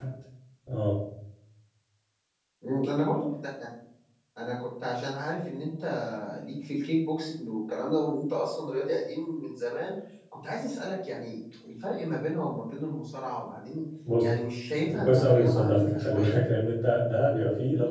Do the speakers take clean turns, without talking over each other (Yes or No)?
No